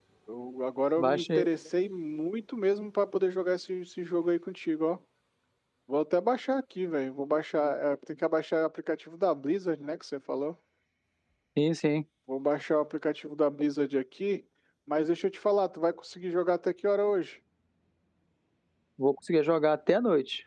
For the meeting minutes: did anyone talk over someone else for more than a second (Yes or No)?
No